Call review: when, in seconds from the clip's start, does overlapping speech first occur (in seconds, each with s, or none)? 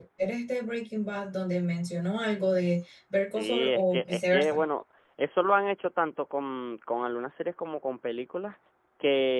3.4 s